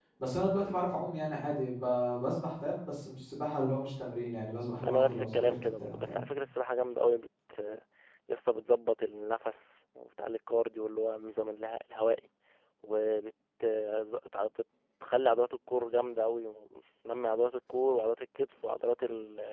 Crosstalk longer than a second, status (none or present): present